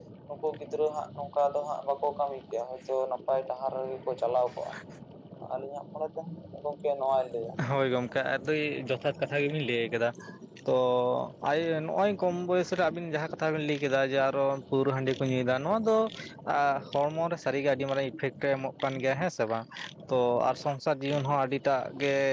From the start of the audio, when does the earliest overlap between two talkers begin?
none

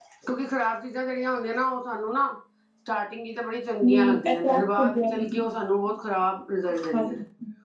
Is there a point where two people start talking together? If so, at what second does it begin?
3.8 s

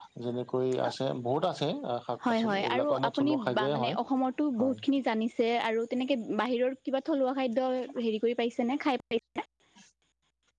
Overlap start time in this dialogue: 2.3 s

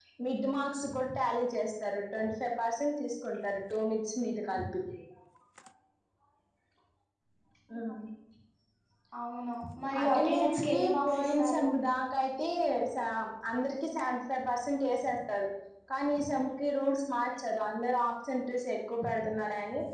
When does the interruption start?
10.0 s

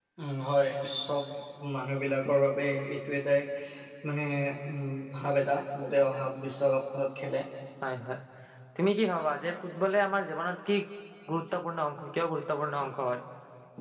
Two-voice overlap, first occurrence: none

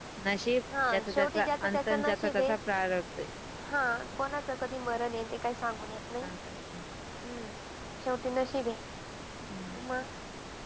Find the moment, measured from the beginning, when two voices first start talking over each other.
0.9 s

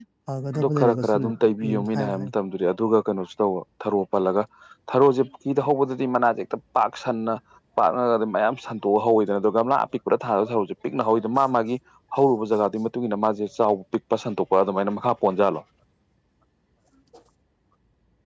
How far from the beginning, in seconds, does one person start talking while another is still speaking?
0.6 s

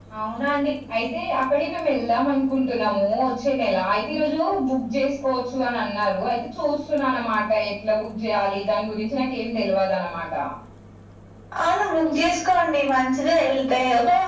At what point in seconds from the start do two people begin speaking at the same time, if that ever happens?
none

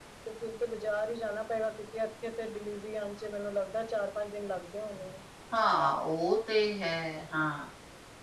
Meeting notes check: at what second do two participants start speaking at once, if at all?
none

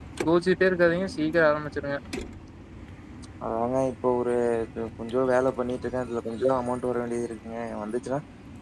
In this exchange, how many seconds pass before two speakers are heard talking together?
none

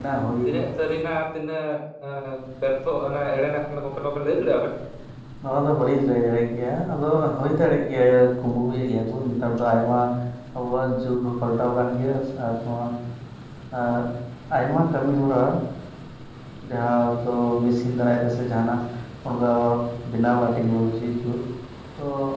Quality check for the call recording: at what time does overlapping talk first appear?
none

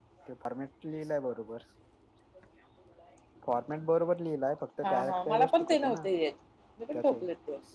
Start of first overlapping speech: 4.8 s

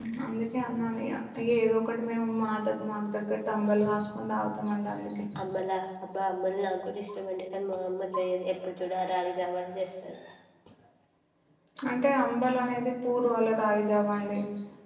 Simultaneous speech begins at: none

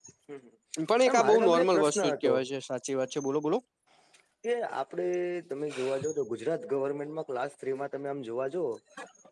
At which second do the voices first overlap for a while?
1.0 s

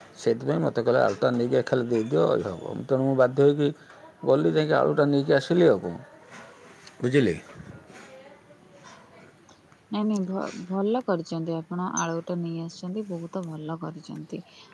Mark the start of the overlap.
none

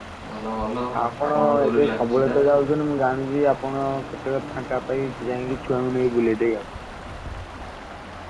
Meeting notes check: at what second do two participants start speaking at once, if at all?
1.0 s

